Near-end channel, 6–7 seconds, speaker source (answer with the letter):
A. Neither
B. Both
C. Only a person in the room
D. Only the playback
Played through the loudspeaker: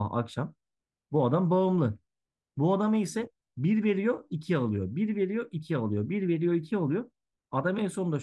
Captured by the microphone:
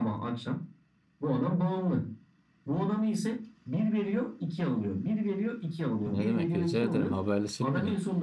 B